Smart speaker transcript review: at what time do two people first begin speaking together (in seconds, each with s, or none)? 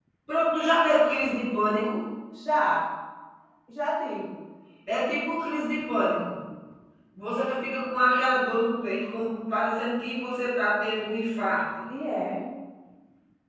none